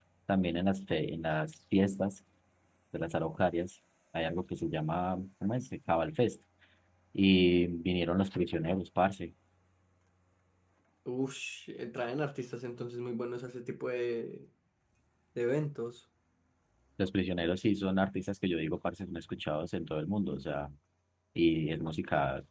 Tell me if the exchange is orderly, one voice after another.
Yes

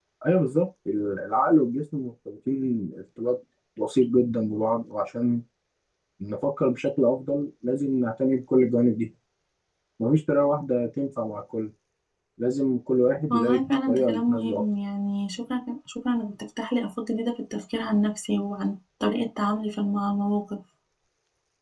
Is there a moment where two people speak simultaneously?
Yes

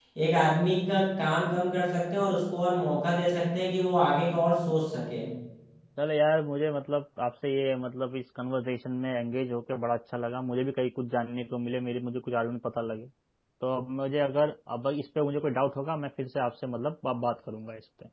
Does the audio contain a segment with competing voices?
No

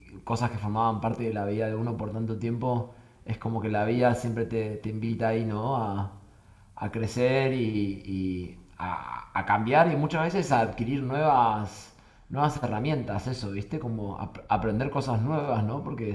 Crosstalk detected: No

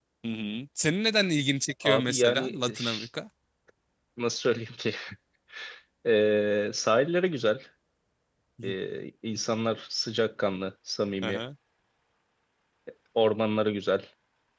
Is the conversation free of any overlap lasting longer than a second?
No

